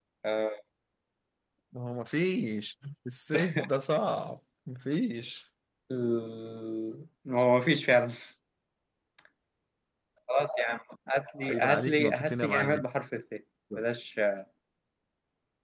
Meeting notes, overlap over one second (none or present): present